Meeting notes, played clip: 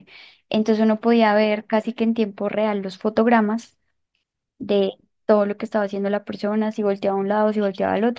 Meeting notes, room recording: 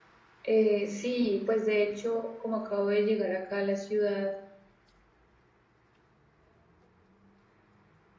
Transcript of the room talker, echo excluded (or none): Eh, sí, pues de hecho, como acabo de llegar acá a la ciudad,